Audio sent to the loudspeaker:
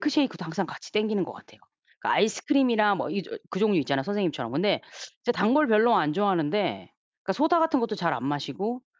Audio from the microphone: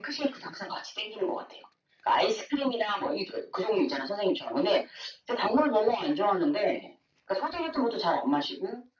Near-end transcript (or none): none